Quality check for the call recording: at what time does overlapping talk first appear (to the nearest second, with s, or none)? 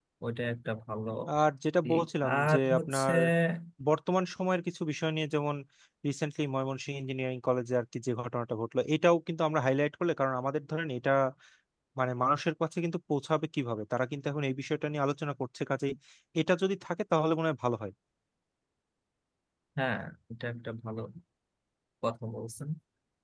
2 s